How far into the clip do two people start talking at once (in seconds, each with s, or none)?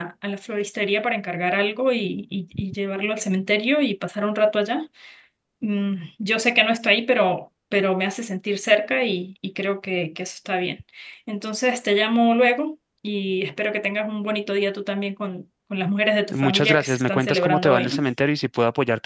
16.3 s